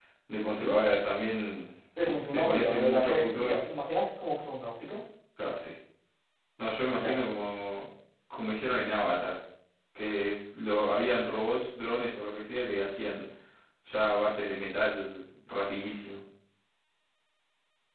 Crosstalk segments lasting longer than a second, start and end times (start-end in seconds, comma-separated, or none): 2.0-3.6